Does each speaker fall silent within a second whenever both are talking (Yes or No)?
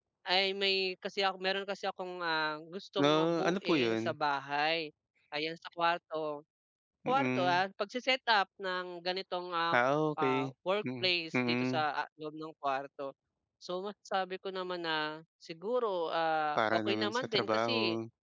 No